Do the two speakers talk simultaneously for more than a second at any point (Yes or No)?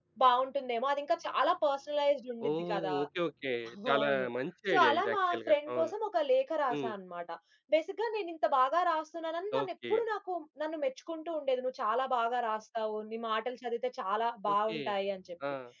Yes